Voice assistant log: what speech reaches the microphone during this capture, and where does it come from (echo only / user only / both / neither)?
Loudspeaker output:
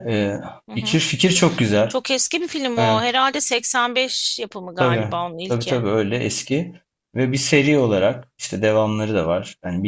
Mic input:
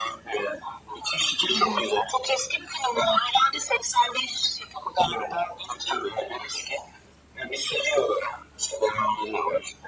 both